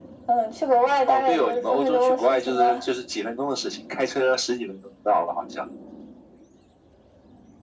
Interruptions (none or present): present